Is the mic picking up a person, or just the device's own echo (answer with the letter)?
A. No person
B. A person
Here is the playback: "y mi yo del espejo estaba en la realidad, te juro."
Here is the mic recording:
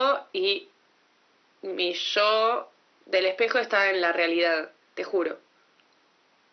A